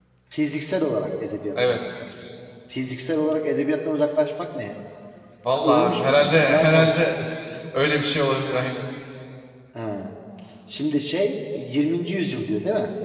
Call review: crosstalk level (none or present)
present